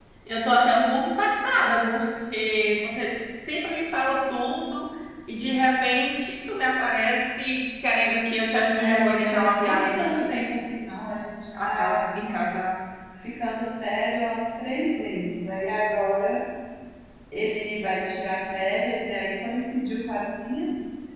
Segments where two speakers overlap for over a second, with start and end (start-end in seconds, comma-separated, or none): 8.8-10.1